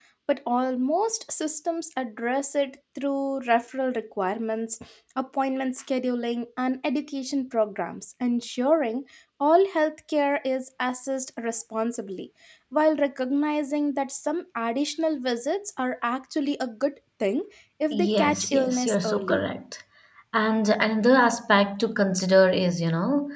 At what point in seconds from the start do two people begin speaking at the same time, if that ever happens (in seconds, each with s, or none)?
17.9 s